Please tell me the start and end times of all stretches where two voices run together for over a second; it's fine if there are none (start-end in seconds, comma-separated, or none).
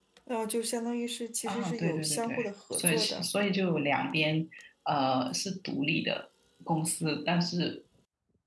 1.5-3.3